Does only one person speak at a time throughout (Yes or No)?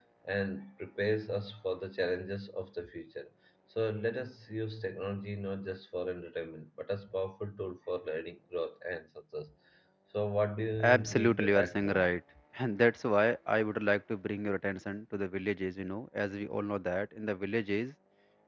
No